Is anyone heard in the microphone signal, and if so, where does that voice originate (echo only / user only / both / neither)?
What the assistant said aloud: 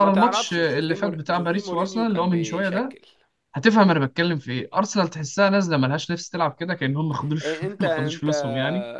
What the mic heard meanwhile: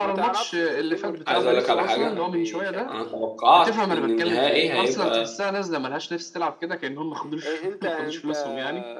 both